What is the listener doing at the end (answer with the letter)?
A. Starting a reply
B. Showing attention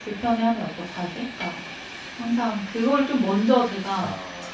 B